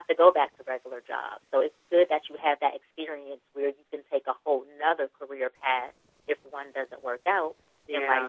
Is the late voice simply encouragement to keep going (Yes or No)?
Yes